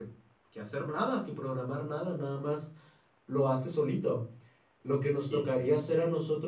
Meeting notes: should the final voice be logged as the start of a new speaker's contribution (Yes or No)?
No